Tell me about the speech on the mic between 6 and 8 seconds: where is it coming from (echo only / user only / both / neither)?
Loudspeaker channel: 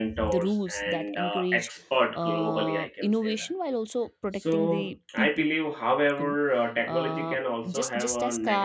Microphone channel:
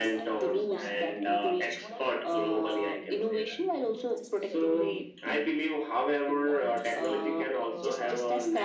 both